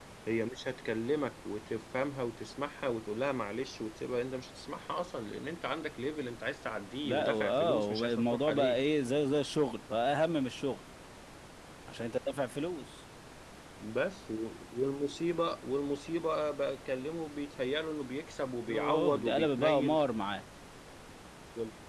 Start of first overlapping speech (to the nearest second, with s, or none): 7 s